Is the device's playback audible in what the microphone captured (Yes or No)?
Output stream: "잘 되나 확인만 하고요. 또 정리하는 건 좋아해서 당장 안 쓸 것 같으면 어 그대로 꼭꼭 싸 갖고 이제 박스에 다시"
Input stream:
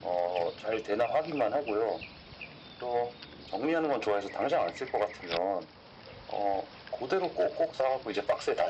Yes